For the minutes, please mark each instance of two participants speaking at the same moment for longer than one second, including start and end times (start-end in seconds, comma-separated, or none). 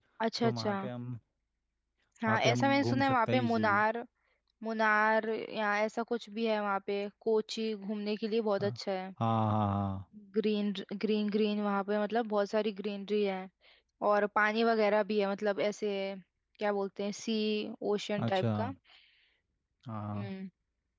2.3-3.8